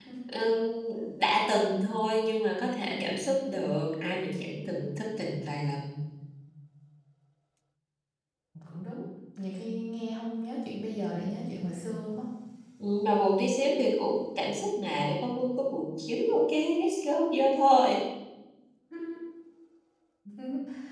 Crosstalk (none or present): none